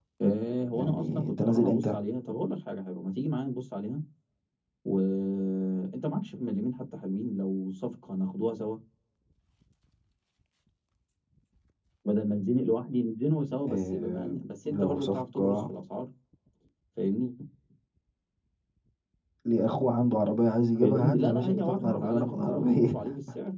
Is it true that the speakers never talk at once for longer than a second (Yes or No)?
No